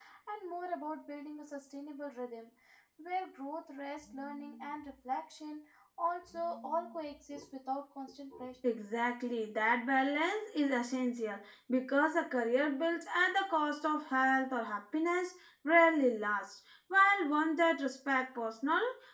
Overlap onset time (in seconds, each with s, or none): none